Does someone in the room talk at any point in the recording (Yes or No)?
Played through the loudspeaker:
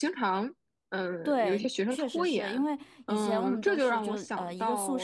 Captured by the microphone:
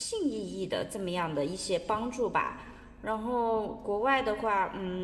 Yes